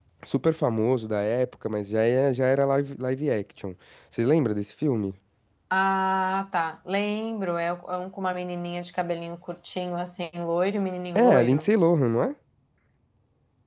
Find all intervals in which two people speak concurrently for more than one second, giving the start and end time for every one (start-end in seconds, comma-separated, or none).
none